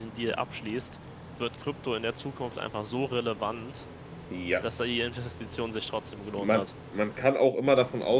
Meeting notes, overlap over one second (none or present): none